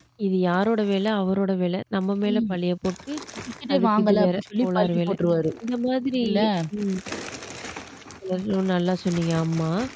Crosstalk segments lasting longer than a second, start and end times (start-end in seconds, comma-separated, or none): 3.7-5.1